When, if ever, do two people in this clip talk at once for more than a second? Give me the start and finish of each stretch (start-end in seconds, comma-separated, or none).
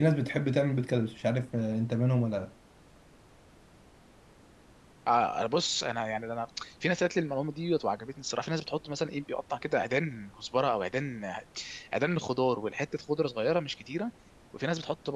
none